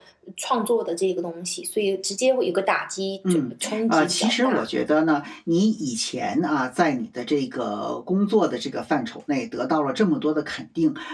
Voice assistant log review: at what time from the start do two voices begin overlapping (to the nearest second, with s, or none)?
3 s